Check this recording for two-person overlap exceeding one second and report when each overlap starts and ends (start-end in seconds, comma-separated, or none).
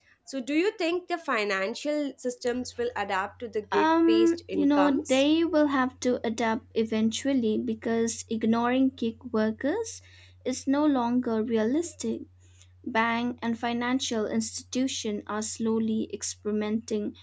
3.7-5.2